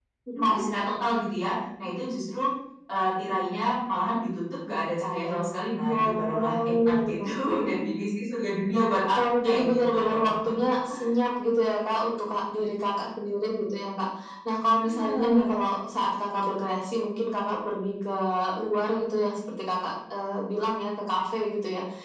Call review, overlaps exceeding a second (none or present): present